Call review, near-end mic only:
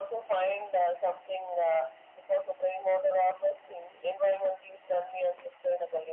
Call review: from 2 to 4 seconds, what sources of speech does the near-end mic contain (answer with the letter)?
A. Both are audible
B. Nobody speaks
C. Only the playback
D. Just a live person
C